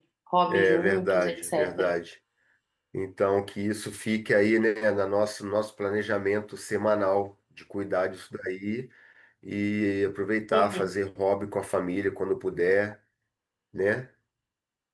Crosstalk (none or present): present